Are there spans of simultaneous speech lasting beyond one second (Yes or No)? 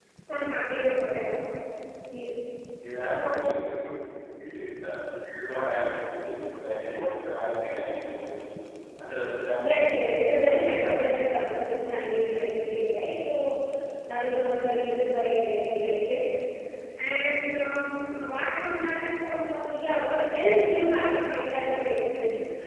Yes